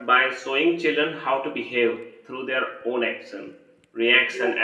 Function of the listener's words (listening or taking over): listening